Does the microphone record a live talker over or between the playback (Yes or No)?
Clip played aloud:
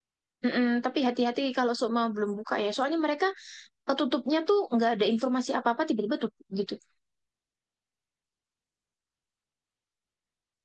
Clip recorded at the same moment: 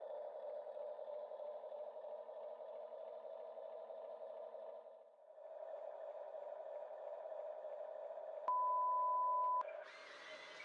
No